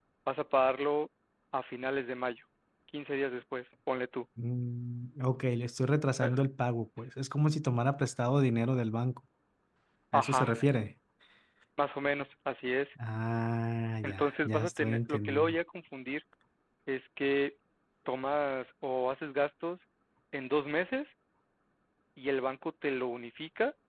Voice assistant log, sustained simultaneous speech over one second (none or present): present